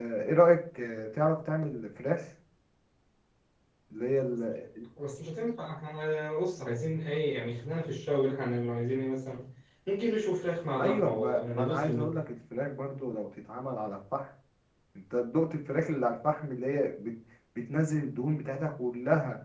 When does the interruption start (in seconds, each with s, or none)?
10.8 s